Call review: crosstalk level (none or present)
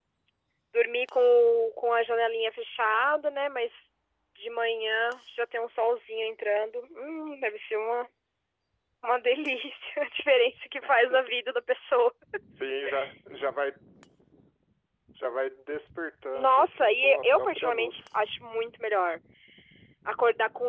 present